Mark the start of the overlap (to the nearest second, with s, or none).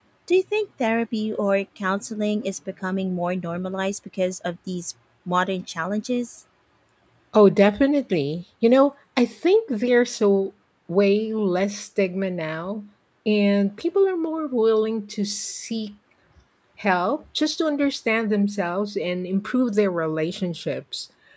none